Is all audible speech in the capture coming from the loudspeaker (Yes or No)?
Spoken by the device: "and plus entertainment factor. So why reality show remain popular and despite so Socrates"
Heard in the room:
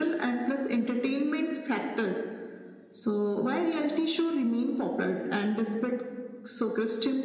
Yes